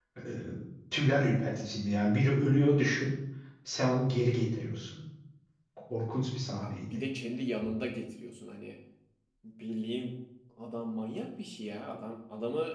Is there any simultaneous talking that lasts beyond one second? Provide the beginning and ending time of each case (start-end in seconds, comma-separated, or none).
none